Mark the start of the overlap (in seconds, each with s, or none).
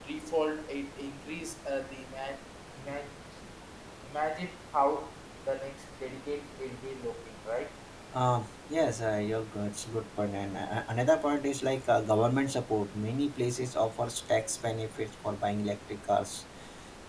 none